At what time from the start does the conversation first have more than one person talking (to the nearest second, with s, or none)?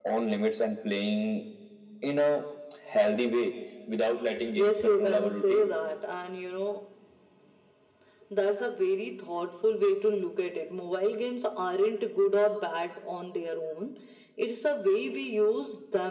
4 s